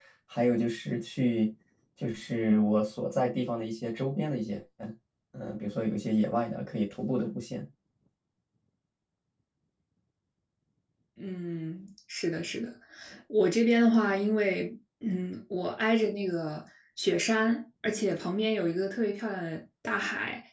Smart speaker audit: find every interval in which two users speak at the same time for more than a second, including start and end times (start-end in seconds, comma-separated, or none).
none